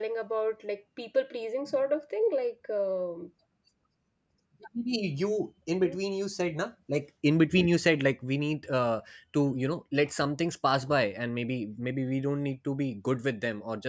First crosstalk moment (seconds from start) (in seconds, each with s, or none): none